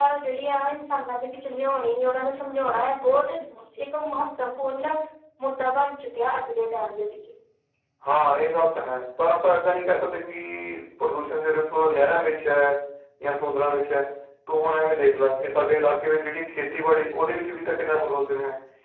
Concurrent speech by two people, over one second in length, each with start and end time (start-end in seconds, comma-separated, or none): none